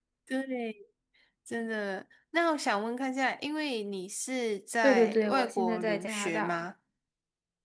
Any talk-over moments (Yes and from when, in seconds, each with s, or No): Yes, from 4.8 s